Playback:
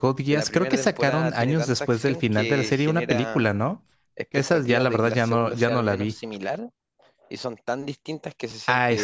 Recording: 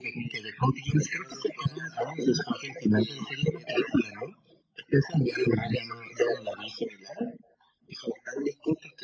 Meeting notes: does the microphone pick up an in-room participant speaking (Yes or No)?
No